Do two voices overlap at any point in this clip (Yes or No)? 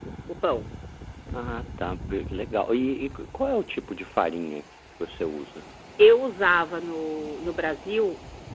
No